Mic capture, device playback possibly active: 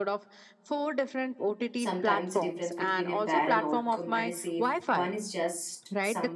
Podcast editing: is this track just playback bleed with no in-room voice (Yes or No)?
No